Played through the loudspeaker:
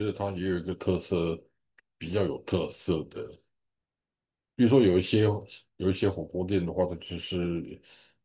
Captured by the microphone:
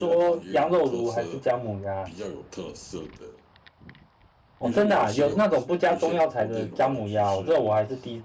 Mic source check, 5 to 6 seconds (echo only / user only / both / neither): both